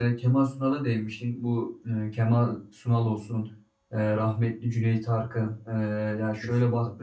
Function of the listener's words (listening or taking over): listening